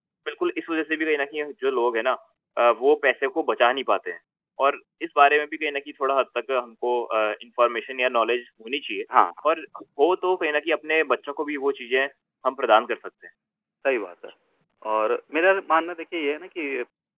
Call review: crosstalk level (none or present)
none